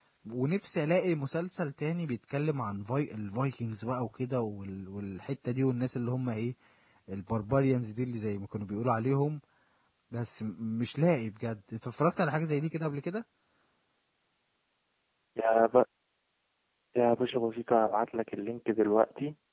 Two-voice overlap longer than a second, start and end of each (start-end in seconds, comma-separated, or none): none